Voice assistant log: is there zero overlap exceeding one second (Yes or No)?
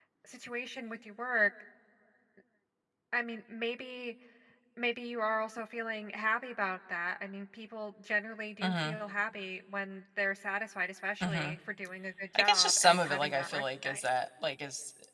No